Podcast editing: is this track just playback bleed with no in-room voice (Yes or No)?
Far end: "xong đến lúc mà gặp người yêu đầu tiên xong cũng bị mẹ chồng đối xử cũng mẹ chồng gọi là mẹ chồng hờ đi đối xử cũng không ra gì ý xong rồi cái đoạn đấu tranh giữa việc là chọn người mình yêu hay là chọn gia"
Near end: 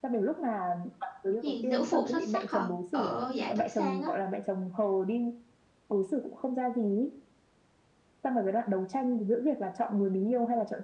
No